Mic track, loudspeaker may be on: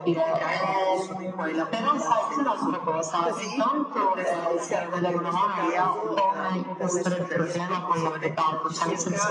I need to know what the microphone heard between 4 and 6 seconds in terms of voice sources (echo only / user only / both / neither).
both